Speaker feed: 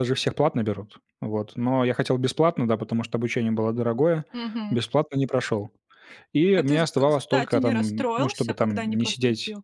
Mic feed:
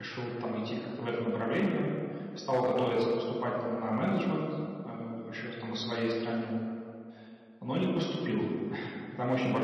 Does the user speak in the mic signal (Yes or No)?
Yes